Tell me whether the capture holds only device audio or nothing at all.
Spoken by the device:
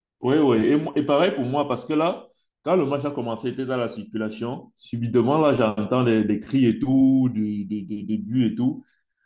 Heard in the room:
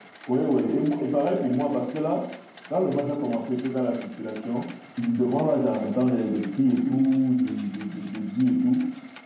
Yes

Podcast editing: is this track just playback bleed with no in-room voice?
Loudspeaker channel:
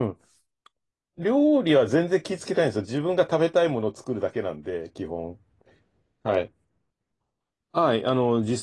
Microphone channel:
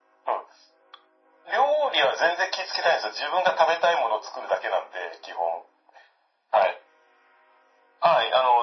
Yes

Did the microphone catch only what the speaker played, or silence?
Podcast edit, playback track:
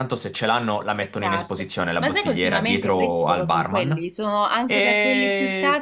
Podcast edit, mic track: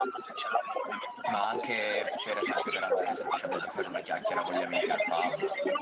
No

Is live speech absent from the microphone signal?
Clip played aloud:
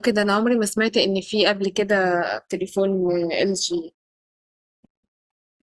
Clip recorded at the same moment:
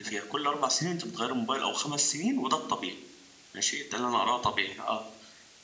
No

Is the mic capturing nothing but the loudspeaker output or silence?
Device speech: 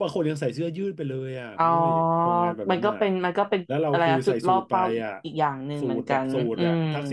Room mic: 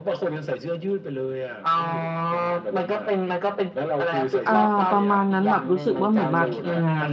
No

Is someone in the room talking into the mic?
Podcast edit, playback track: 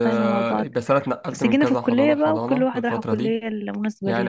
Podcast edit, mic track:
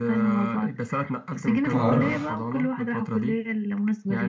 Yes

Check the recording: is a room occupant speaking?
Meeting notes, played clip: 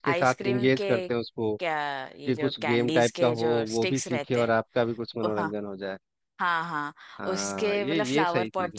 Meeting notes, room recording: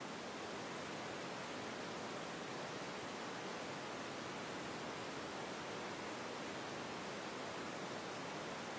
No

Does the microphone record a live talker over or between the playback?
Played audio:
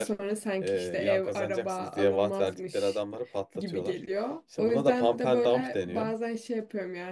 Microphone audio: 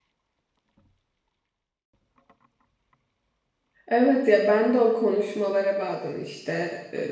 Yes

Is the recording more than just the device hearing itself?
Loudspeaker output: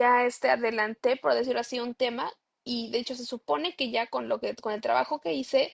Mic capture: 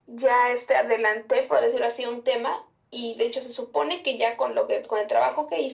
No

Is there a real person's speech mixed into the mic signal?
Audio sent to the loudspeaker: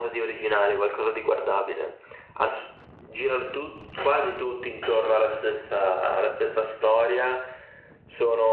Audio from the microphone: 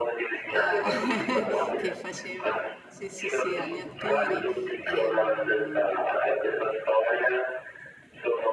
Yes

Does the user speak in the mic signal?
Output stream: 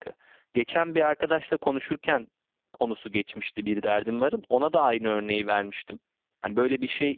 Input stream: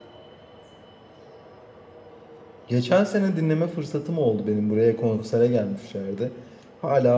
Yes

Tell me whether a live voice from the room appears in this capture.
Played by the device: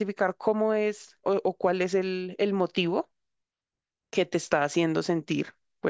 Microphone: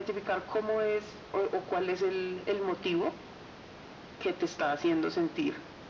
No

